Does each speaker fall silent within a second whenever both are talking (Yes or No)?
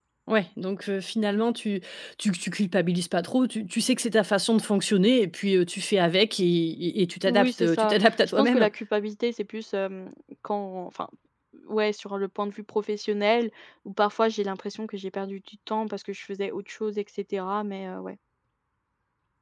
No